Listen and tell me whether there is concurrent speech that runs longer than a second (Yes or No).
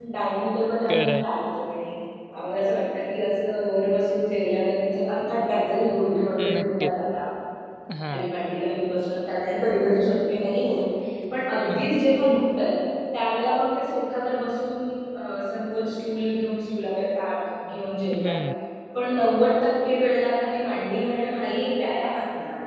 No